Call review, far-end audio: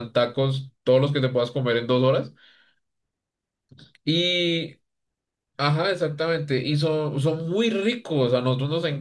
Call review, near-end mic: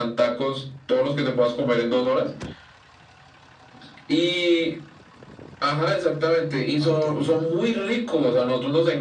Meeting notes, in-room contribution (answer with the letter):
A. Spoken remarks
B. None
A